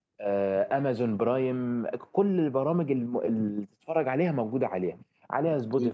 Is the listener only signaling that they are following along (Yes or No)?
Yes